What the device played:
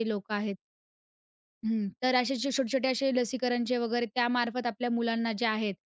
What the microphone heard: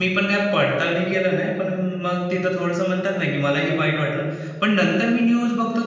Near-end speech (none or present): present